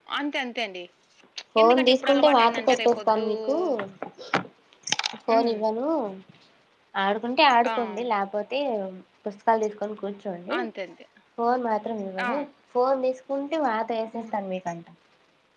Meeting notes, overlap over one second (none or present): present